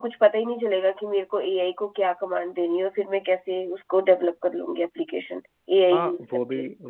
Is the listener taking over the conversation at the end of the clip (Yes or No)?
Yes